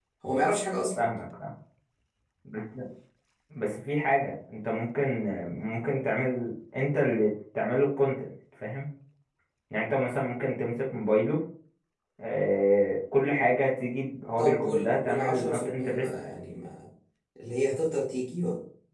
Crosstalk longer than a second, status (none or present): present